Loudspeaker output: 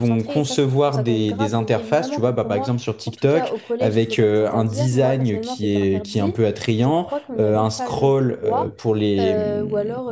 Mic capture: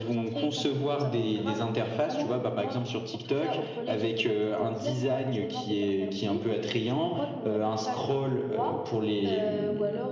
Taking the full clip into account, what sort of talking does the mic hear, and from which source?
echo only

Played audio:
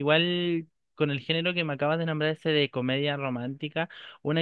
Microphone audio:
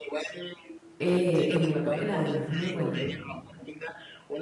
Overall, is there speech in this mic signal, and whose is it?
both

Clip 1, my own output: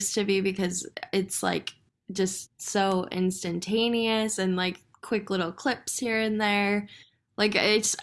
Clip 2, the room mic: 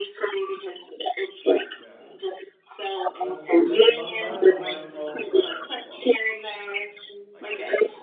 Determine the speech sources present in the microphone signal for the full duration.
both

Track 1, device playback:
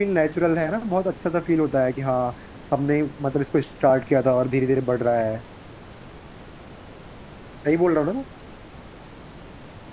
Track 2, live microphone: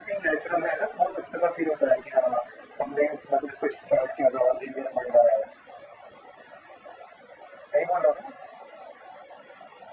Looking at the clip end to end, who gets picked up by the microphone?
echo only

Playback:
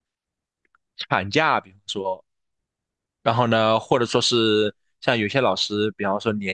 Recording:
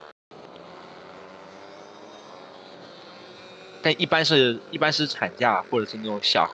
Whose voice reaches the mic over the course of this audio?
user only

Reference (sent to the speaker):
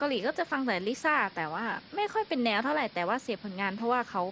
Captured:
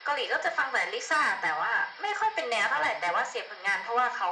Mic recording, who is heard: echo only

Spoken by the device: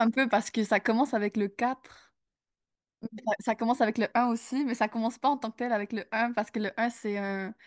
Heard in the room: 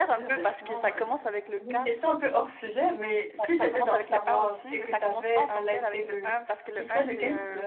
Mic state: both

